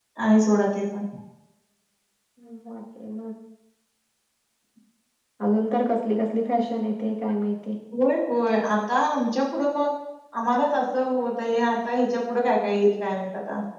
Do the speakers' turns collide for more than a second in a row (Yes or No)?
No